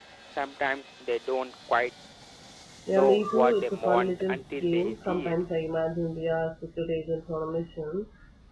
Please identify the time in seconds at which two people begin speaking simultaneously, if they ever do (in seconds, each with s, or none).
2.9 s